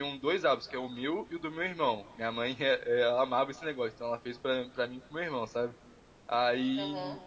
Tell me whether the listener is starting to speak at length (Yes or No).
No